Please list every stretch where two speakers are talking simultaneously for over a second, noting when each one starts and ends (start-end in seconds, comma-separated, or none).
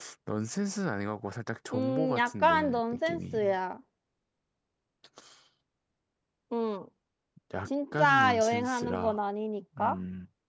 1.7-3.6, 7.6-9.2